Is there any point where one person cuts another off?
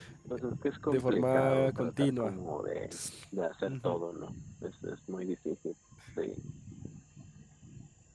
Yes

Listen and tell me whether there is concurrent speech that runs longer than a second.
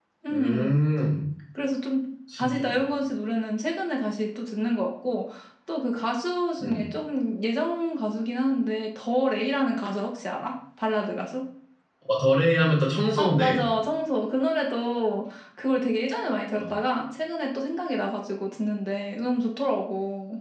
No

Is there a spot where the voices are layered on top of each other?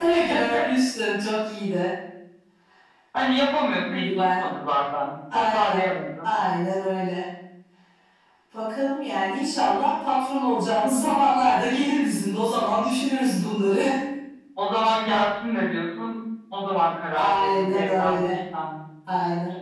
Yes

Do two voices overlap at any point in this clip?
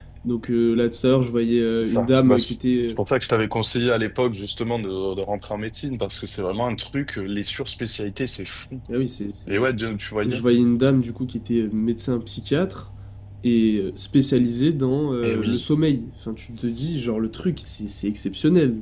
Yes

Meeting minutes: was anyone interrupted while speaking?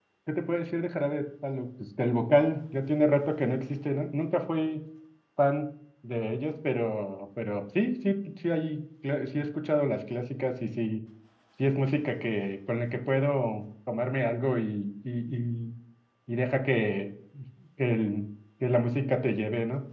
No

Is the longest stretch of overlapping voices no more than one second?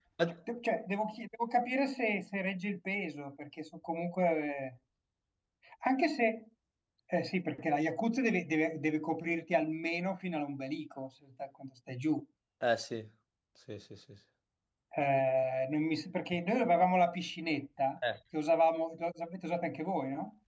Yes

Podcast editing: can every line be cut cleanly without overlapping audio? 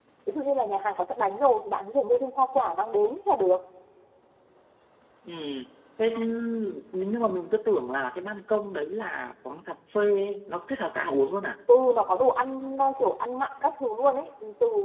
Yes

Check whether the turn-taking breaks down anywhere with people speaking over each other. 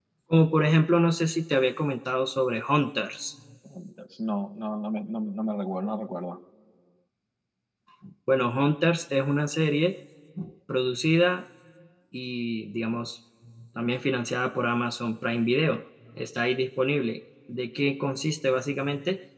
No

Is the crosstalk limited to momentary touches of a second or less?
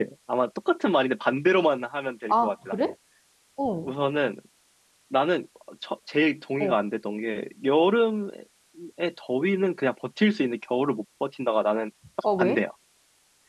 Yes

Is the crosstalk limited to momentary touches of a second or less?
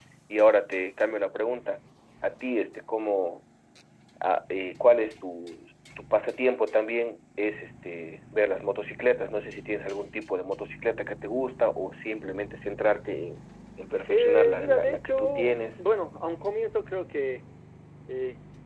No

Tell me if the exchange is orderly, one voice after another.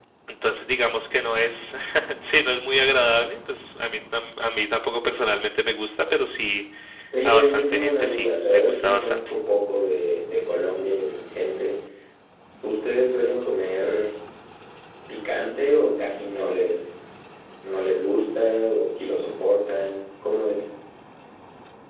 No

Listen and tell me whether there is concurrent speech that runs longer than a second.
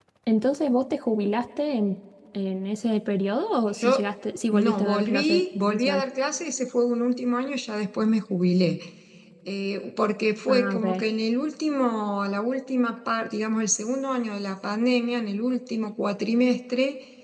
Yes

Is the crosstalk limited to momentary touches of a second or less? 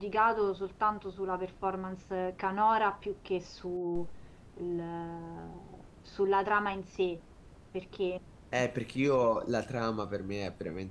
Yes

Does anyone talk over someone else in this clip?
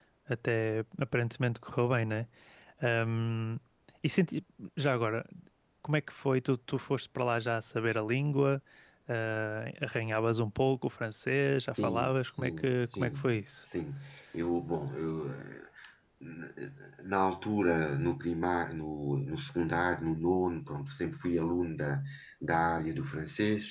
Yes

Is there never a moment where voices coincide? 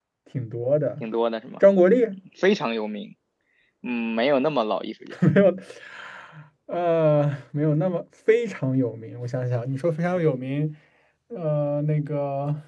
Yes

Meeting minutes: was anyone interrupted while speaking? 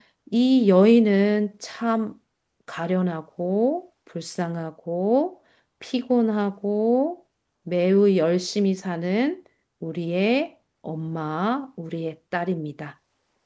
No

